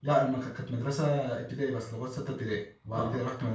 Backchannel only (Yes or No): Yes